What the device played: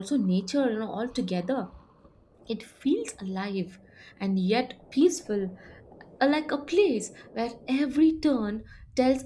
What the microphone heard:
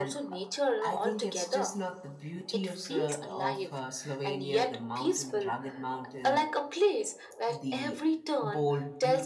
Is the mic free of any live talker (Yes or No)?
No